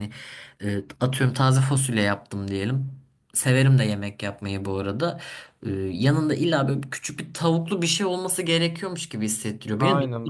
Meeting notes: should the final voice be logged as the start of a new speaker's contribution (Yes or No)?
Yes